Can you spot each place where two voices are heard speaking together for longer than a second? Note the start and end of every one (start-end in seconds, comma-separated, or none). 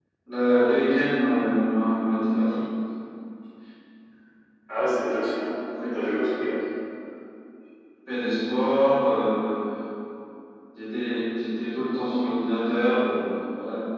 none